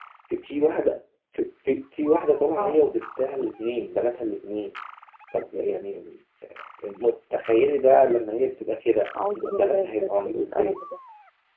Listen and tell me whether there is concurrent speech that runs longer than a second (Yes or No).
Yes